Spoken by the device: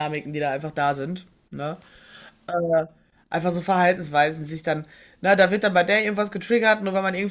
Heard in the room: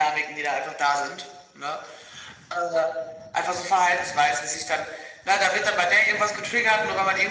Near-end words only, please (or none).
none